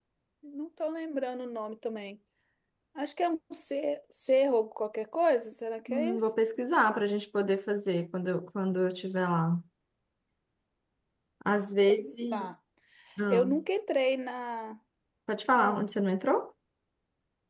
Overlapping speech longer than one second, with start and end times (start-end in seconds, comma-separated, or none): none